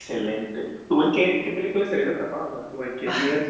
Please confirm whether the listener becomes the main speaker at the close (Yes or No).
Yes